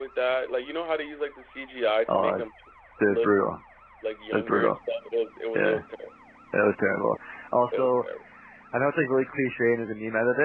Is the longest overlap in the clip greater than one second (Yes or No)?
No